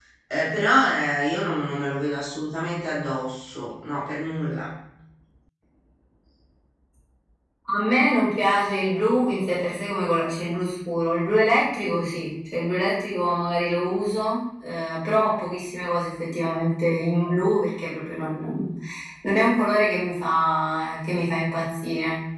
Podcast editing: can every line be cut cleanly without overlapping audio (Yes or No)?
Yes